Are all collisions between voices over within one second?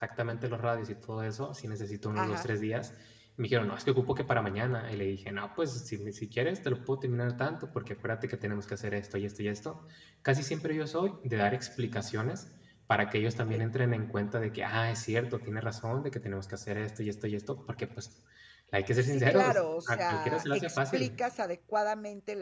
No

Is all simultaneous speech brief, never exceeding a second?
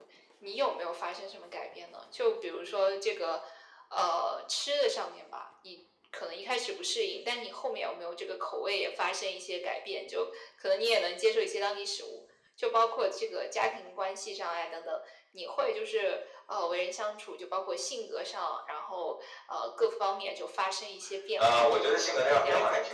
No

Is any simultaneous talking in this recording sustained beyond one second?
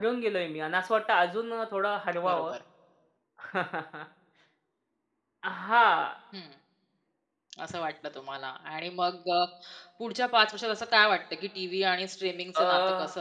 No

